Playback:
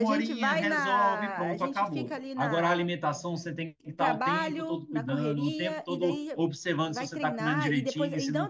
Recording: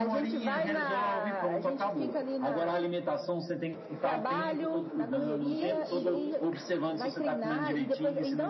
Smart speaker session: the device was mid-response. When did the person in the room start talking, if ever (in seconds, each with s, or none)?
5.5 s